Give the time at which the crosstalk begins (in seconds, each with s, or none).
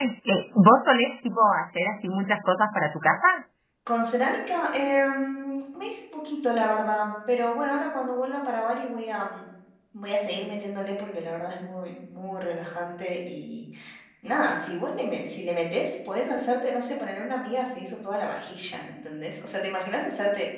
none